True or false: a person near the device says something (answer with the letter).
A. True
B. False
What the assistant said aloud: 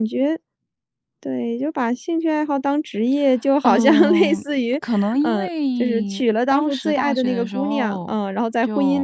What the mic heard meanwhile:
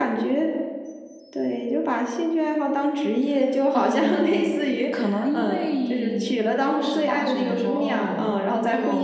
B